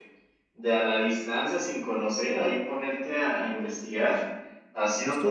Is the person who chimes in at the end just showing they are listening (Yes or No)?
No